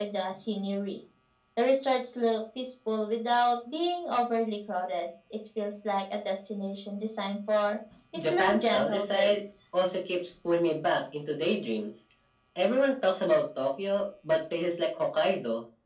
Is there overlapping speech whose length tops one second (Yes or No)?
Yes